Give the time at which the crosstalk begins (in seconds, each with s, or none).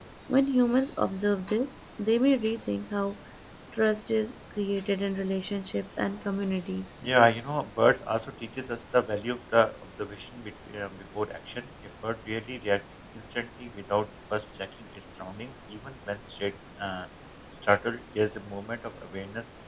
none